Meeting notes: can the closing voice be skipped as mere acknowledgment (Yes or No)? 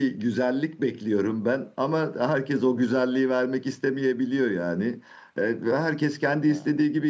Yes